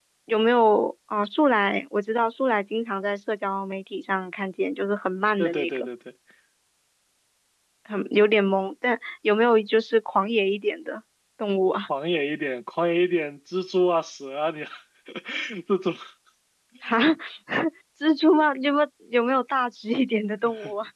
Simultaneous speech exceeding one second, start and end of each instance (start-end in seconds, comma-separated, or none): none